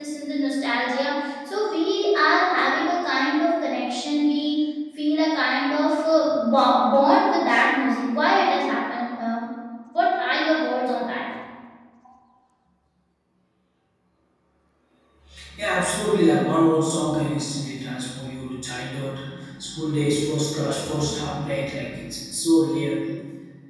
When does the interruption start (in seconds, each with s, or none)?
none